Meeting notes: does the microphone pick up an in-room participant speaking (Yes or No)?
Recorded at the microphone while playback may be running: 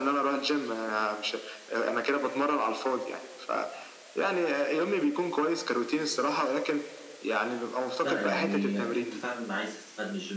Yes